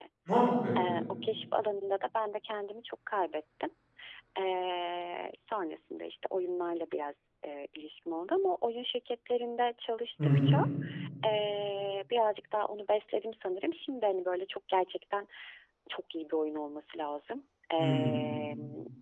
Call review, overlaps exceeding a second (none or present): none